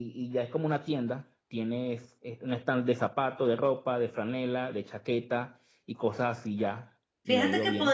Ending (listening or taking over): taking over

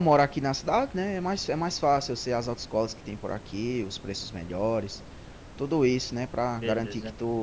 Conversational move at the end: listening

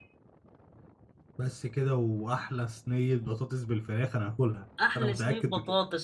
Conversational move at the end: taking over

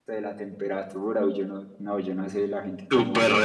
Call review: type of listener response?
taking over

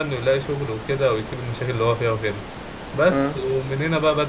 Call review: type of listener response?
listening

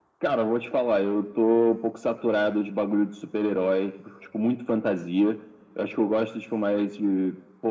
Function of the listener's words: listening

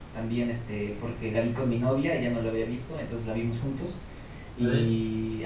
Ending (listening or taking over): listening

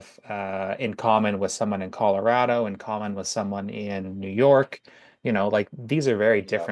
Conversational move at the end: listening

